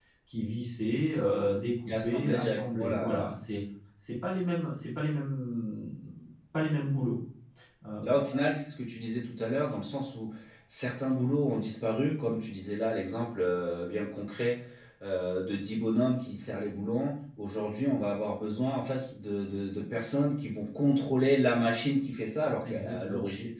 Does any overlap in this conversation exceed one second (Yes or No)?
Yes